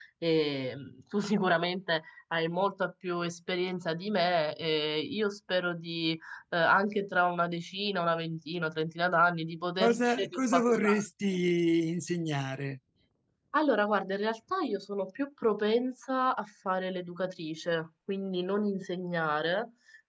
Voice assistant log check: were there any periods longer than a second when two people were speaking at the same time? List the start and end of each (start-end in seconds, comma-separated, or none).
9.8-11.0